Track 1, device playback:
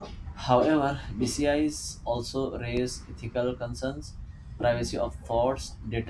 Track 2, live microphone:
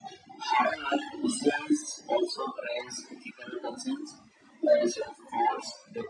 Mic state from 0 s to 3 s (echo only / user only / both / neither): echo only